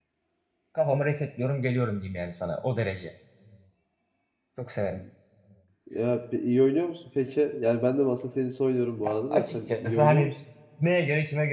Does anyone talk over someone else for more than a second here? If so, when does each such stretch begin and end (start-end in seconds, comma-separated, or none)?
9.0-10.3